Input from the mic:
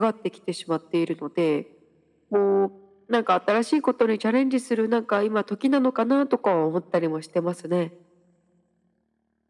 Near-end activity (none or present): none